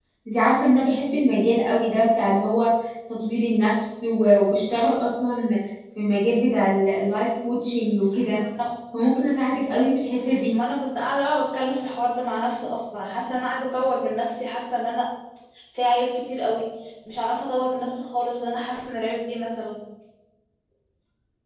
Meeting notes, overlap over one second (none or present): none